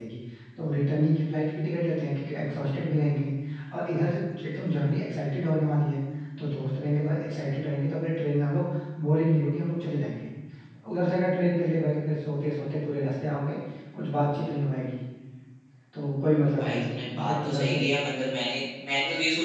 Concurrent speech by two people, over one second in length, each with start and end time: 16.6-17.8

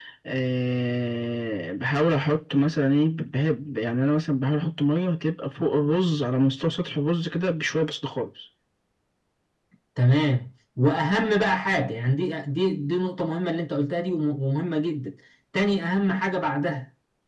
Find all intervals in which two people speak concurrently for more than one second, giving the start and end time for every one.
none

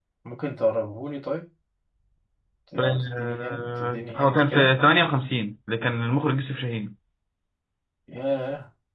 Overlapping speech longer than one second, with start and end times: 2.8-4.7

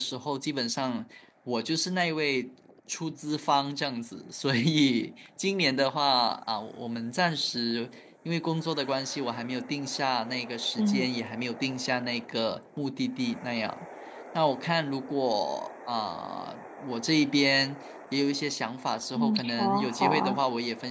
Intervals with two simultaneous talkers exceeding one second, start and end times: 19.1-20.4

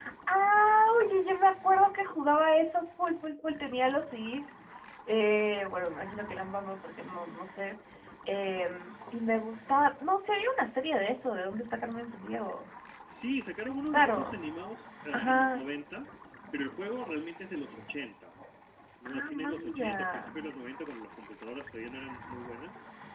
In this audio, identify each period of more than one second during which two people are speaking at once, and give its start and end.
19.1-20.3

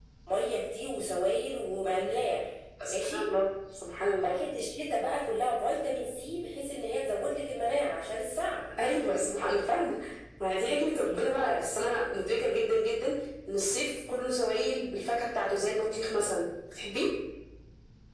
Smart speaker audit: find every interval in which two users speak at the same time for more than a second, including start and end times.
none

